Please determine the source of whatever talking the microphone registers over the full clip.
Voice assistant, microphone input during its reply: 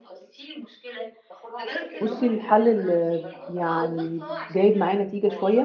both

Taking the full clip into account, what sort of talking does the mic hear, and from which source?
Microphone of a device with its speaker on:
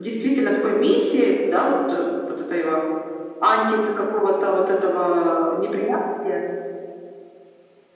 echo only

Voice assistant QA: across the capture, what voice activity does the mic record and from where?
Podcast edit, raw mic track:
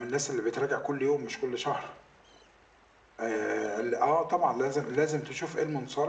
echo only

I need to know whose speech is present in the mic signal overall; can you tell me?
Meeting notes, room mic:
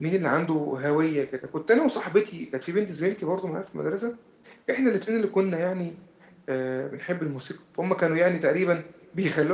echo only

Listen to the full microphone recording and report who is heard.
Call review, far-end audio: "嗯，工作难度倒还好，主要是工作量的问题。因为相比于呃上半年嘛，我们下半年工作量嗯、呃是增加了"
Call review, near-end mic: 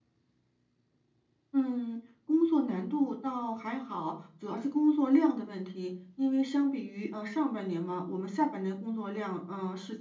echo only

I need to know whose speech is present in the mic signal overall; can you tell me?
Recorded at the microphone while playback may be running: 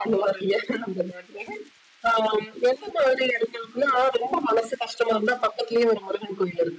echo only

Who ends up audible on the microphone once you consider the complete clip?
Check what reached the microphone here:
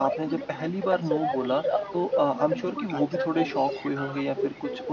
both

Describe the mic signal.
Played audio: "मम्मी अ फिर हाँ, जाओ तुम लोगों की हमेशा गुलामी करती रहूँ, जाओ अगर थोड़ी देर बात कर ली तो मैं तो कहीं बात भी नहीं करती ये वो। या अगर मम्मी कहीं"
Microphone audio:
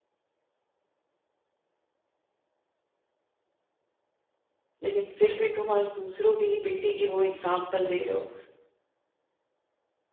user only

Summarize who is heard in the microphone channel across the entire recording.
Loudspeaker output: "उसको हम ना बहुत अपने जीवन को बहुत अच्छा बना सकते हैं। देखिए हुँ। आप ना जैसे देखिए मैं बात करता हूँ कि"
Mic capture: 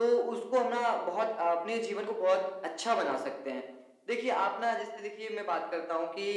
echo only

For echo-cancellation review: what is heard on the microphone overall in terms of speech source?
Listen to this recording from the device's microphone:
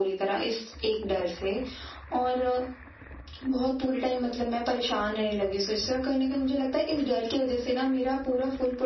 echo only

